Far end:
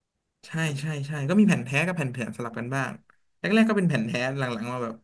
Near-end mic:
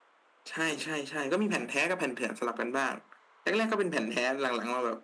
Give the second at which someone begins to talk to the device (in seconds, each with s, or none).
none